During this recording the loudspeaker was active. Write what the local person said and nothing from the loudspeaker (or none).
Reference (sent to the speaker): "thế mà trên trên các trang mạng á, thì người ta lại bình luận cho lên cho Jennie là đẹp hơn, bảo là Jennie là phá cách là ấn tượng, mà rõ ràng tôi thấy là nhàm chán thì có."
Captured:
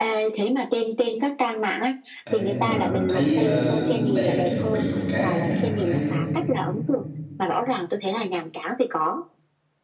Ê, nhưng mà thấy ờ, cũng đẹp nhưng mà bị một cái nha có thấy